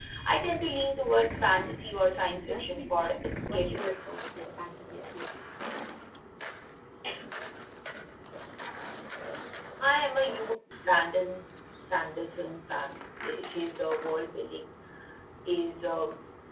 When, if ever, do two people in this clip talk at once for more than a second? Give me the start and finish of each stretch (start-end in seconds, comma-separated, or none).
2.2-4.0